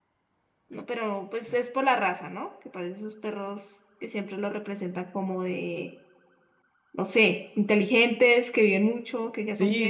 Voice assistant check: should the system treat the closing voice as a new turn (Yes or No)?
Yes